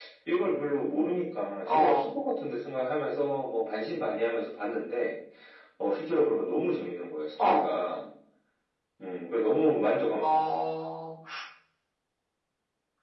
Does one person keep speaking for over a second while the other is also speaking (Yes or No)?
No